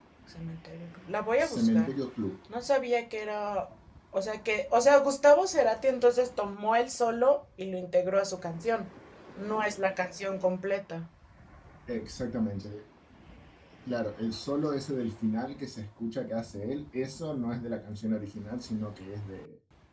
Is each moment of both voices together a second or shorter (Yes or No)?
Yes